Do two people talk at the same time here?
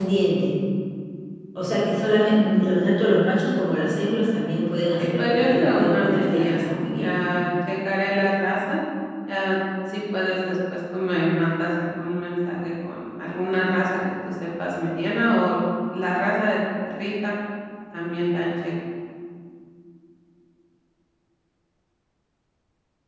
Yes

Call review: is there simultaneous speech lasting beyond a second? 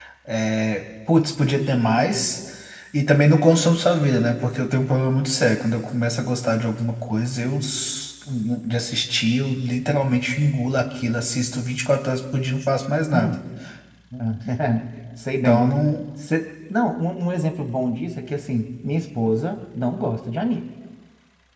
No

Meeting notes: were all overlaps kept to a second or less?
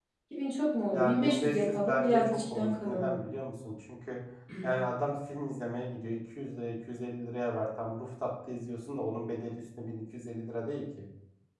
No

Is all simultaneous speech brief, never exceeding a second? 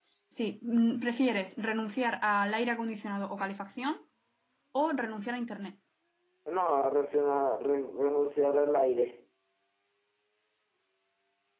Yes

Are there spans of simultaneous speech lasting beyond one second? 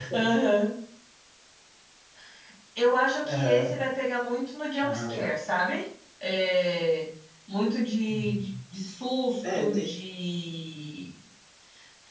No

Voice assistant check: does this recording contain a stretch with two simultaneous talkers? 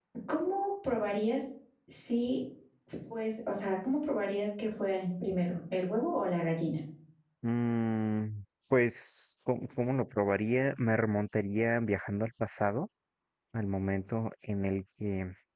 No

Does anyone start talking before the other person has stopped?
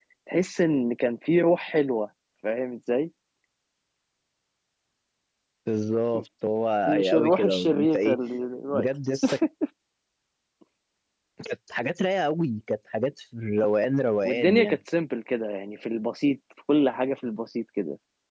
Yes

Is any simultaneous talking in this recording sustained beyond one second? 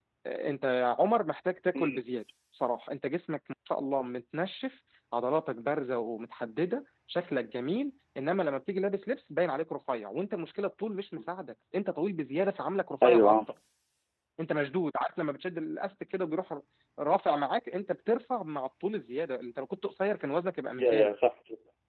No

